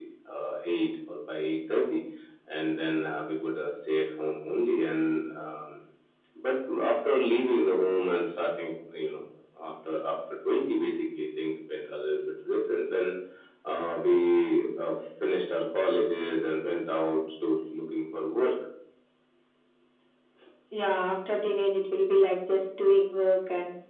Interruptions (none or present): none